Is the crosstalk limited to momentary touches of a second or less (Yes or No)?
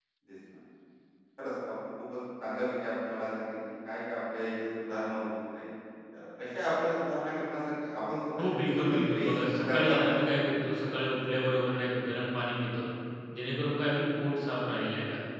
No